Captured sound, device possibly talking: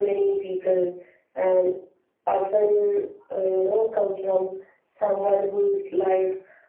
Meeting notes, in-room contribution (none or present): none